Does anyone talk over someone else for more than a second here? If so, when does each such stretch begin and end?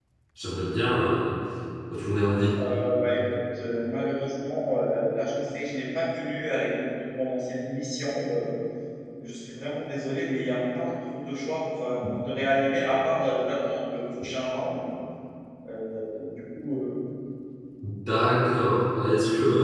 none

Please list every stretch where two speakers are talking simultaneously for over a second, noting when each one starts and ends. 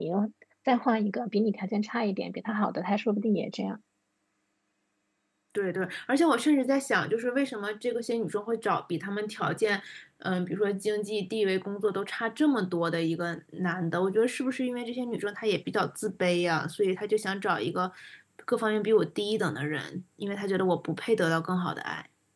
none

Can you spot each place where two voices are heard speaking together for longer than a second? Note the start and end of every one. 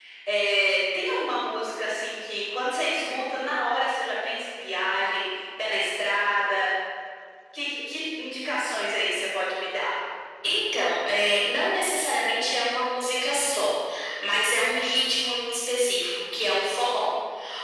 none

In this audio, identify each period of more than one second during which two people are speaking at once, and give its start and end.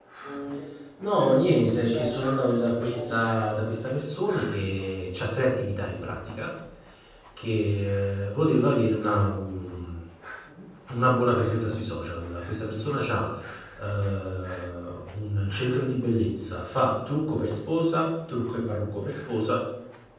1.3-3.3

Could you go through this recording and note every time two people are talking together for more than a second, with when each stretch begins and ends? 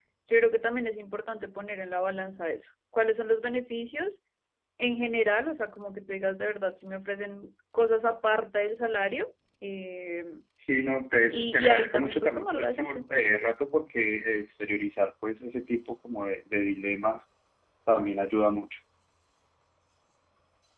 11.3-13.1

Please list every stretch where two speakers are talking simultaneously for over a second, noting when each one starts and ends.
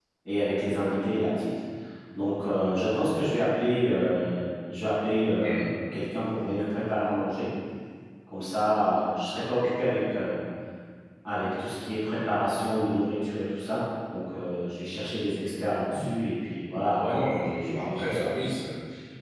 17.0-18.3

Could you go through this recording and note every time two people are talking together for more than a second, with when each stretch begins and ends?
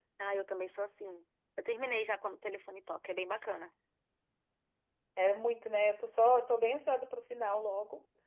none

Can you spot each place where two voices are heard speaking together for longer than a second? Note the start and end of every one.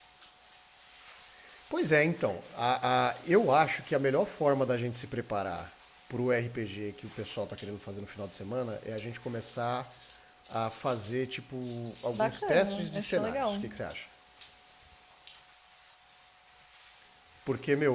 12.1-13.6

